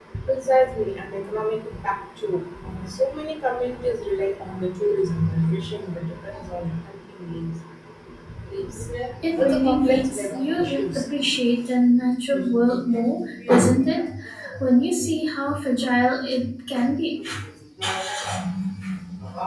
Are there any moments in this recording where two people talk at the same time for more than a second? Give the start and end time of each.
9.4-10.8

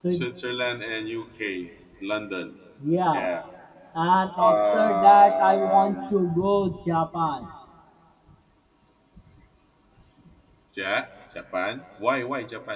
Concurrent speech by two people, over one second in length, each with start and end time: 4.4-6.1

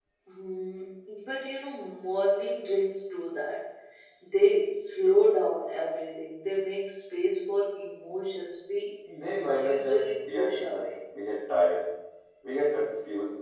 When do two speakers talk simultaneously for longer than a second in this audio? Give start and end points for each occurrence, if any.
9.5-10.9

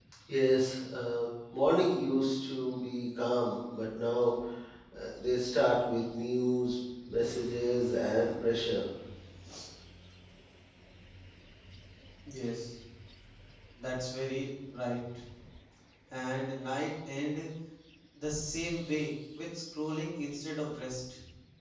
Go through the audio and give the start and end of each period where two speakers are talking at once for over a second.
none

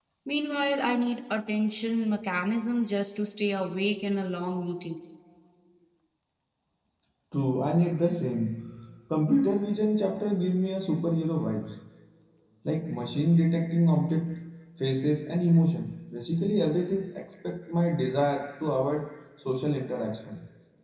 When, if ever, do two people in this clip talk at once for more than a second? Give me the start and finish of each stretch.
none

